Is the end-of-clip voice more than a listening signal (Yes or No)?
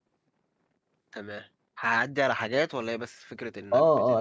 Yes